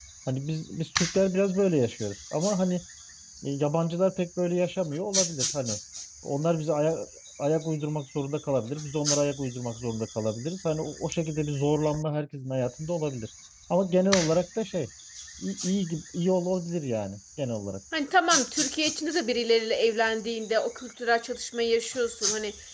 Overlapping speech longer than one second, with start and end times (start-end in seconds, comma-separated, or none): none